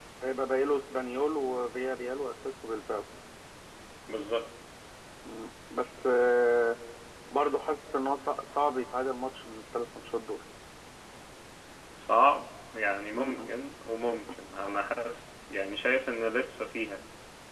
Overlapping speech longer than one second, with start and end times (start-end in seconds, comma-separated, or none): none